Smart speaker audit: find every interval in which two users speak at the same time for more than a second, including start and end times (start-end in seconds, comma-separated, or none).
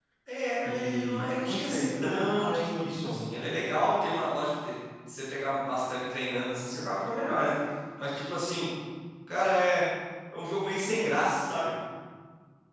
0.7-3.2